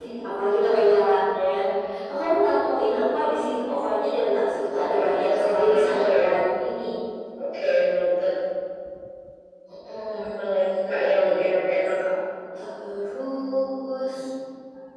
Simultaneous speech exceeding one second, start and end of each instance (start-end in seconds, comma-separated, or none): 4.8-6.3